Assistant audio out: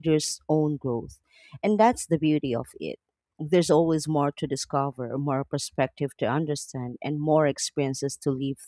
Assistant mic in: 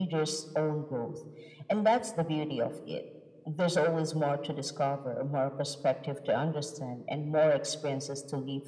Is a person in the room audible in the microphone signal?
No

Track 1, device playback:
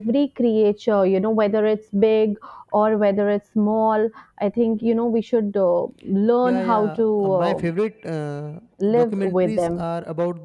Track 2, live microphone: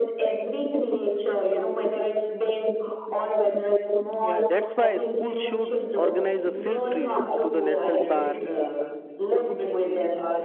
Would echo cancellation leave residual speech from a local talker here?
Yes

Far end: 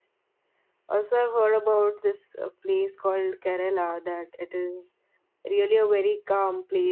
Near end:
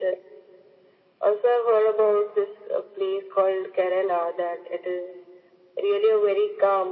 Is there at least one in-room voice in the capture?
No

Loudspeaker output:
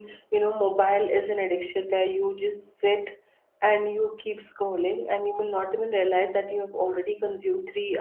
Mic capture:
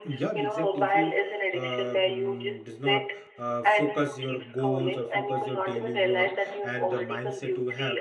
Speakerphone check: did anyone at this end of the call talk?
Yes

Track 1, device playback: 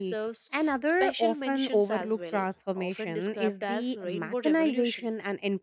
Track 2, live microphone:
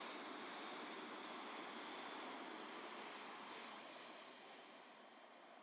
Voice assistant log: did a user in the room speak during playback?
No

